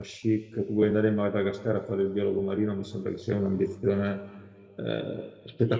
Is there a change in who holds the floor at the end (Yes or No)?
Yes